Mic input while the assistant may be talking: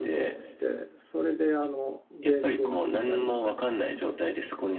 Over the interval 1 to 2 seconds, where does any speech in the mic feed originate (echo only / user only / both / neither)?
user only